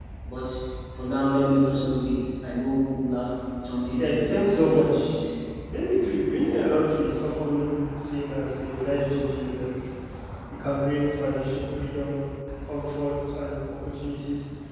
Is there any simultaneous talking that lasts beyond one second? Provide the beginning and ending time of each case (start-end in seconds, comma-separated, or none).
4.0-5.2